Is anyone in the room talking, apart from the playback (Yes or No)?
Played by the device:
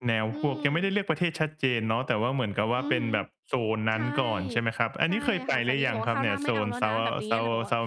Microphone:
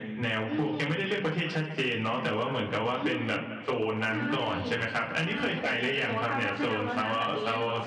No